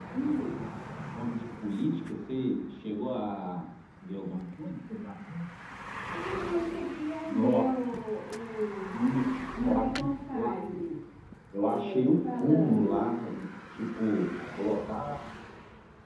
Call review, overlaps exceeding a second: present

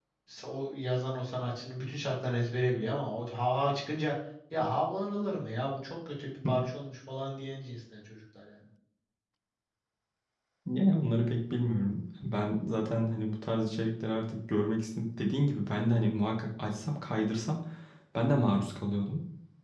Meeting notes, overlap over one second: none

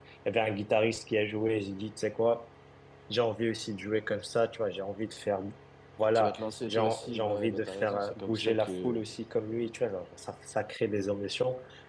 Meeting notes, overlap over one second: present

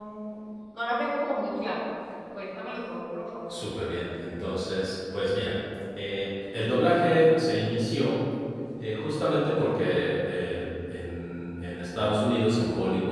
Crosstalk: none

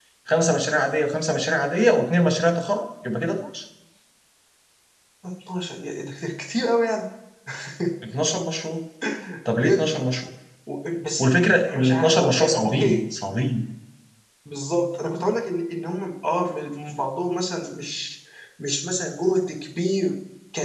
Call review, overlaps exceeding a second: present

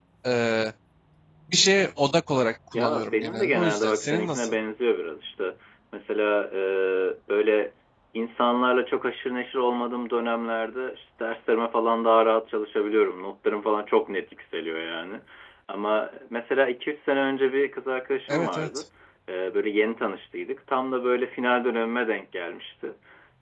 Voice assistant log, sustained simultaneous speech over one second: present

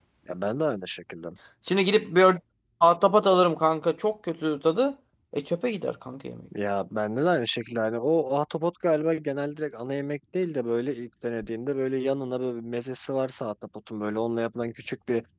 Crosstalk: none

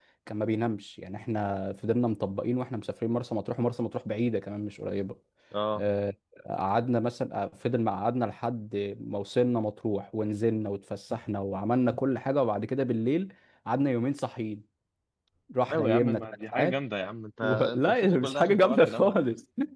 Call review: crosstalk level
present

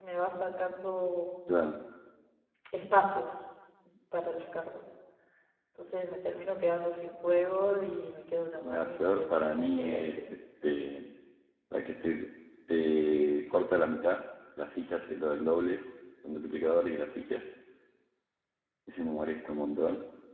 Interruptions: present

